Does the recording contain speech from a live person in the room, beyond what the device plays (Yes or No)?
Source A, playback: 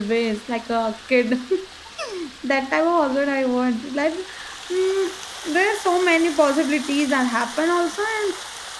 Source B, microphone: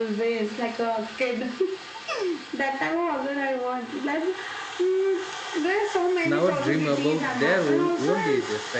Yes